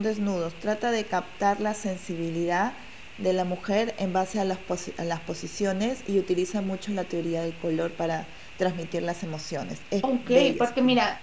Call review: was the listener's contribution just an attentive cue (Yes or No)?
No